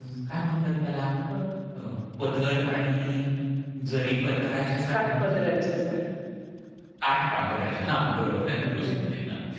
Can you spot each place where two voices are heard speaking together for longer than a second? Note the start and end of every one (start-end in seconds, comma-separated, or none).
none